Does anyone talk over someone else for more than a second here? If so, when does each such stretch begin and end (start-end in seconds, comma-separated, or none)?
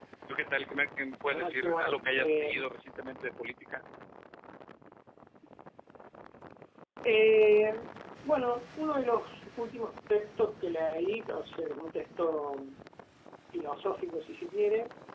1.3-2.5